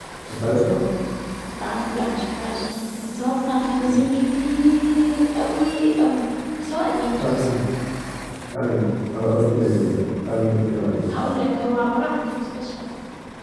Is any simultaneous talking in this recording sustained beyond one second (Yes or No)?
No